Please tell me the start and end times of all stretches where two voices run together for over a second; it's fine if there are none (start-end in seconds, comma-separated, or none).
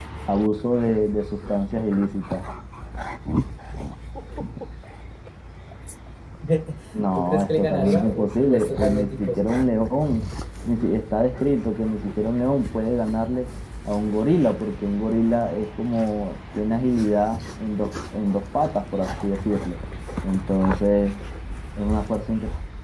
7.1-9.6